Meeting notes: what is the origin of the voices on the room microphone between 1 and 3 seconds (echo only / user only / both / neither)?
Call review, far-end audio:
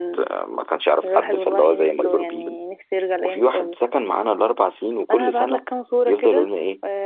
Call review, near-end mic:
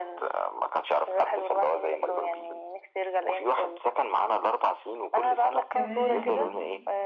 echo only